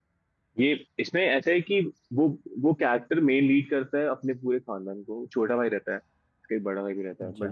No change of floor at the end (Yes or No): Yes